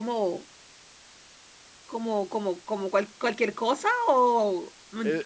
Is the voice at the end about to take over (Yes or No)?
Yes